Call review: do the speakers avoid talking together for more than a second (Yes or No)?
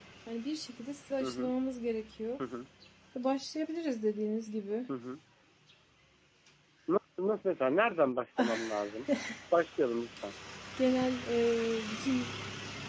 Yes